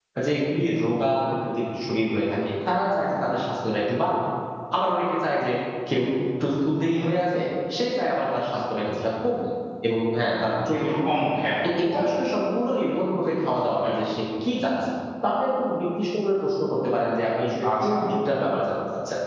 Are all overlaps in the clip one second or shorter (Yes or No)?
Yes